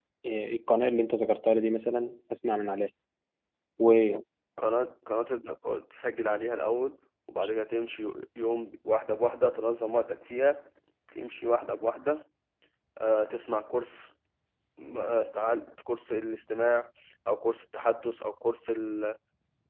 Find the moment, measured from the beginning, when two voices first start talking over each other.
none

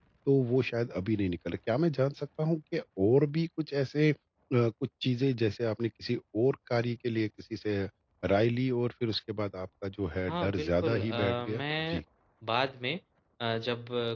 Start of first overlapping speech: 10.3 s

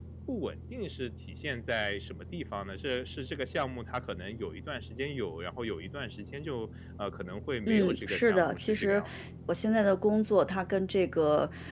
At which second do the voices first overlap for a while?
7.7 s

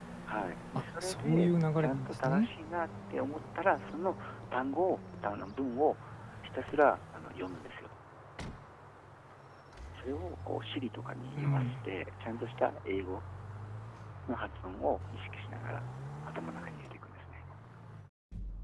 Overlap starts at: 0.8 s

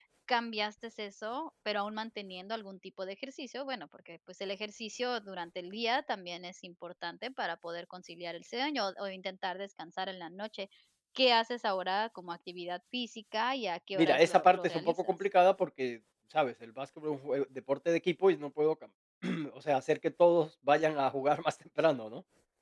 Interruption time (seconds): 13.9 s

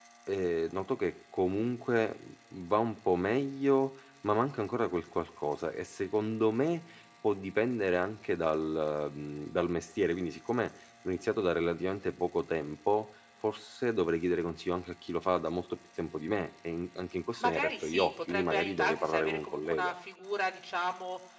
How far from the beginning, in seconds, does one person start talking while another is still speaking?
17.4 s

